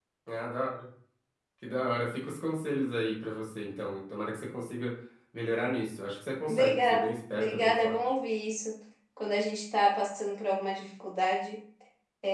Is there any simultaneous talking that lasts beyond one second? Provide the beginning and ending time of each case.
6.5-7.9

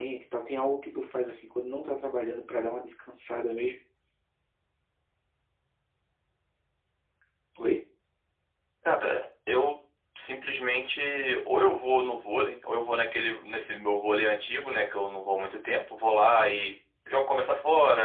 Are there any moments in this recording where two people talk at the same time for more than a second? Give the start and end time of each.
none

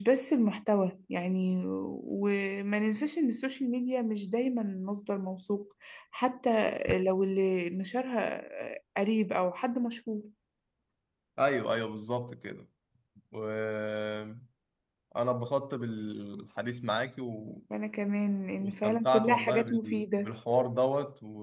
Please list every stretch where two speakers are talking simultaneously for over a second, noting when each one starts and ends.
18.6-20.3

